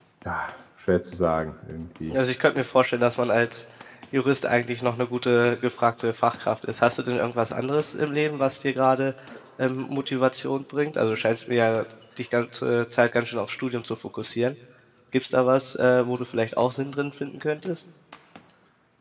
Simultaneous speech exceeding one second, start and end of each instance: none

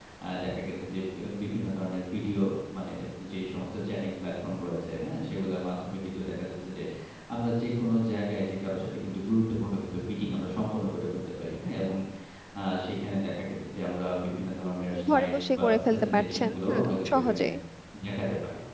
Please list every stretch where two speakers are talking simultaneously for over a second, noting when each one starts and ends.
15.1-17.4

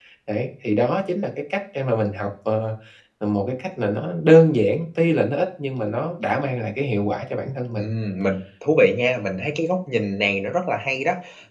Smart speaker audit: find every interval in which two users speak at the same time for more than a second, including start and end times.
none

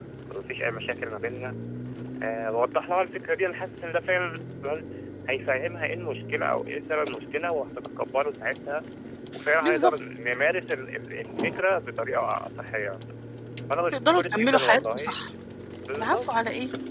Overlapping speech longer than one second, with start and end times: 13.9-15.2

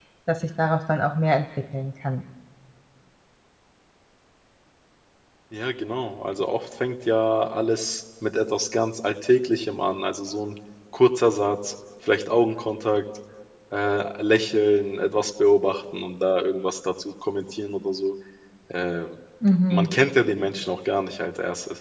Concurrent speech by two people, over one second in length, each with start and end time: none

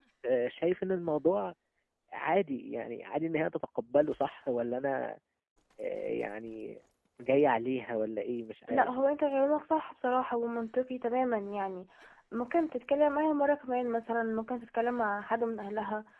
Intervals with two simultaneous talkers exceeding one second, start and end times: none

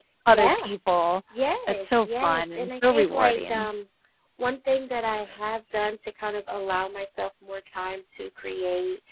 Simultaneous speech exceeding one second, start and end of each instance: 1.7-3.7

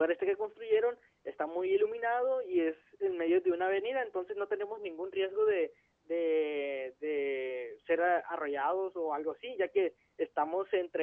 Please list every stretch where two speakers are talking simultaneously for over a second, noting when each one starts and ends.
none

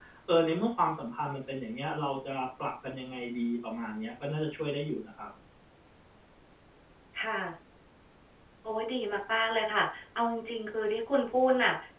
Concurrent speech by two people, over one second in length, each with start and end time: none

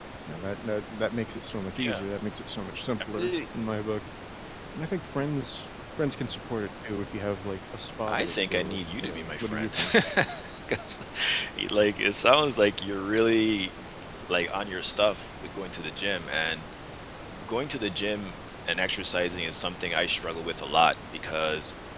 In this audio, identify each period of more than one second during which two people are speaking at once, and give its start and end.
8.1-9.7

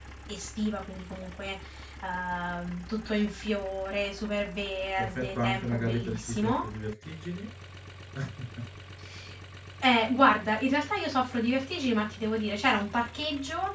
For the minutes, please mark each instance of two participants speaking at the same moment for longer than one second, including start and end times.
5.0-6.6

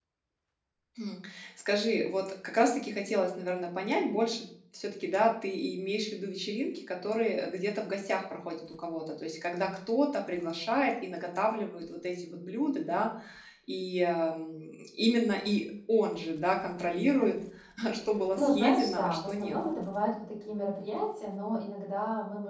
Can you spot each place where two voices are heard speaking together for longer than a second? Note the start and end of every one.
18.4-19.6

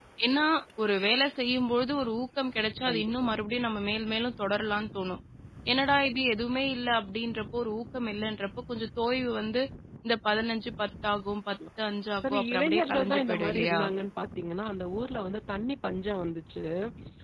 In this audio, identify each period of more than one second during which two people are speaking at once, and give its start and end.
12.2-13.8

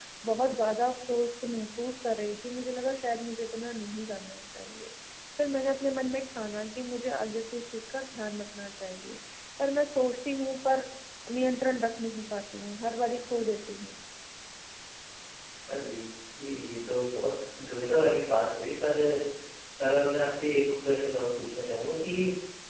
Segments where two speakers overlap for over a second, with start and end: none

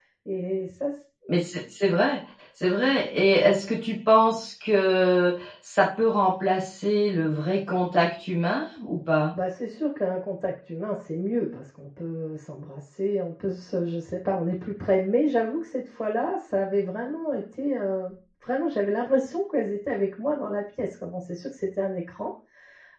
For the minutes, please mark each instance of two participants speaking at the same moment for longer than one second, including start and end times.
none

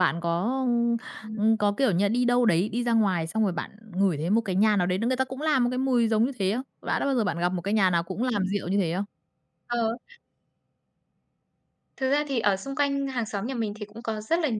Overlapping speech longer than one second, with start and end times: none

